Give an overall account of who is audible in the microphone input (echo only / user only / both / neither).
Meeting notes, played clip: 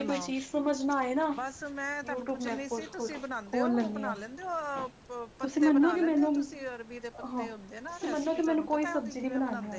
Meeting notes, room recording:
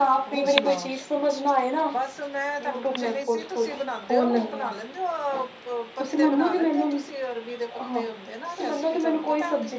echo only